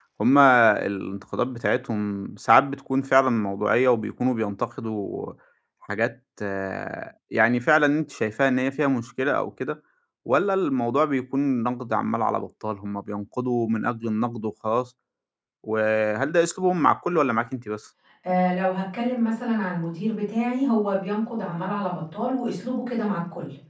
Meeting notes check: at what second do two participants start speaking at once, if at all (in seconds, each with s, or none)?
none